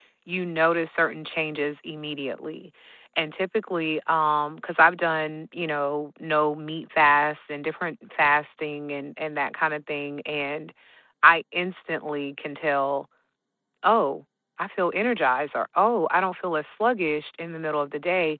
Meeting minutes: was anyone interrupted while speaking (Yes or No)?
No